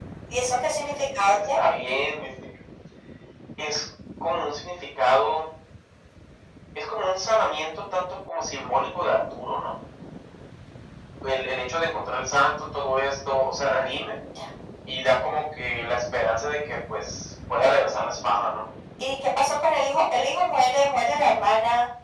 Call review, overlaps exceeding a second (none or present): none